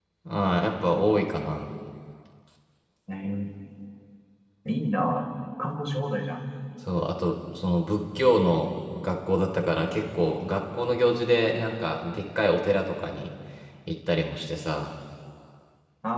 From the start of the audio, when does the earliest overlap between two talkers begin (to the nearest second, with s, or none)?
none